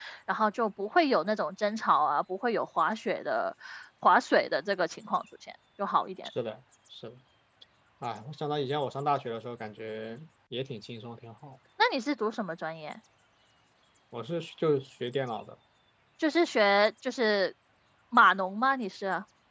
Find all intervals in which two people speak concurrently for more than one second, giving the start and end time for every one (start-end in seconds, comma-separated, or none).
none